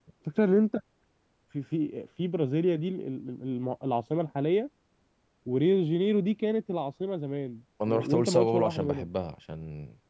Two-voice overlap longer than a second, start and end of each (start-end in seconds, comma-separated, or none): 7.9-9.1